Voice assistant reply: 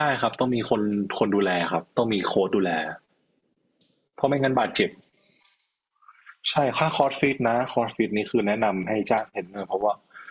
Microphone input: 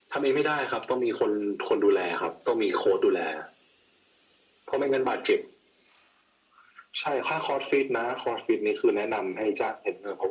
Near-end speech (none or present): none